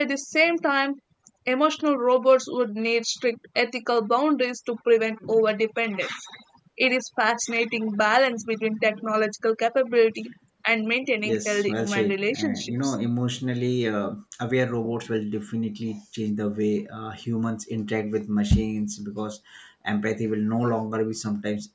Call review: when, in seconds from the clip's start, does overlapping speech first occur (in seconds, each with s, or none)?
11.2 s